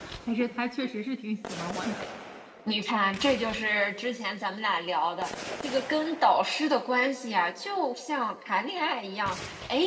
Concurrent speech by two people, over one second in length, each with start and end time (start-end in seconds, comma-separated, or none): none